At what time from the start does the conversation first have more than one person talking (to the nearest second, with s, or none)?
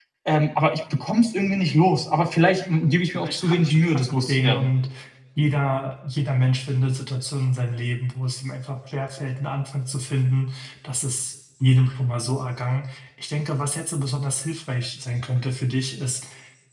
3 s